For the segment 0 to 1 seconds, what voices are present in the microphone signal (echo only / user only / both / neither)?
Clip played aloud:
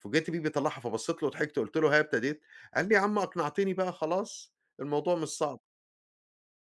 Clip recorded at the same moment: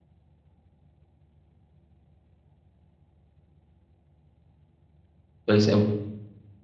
neither